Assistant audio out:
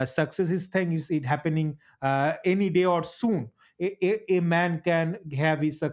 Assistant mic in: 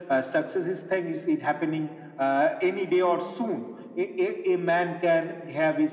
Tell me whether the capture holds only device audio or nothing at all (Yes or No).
Yes